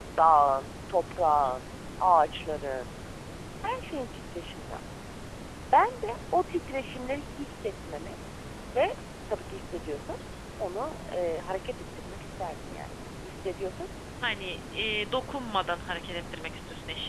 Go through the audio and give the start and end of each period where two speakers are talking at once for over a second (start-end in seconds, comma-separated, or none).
none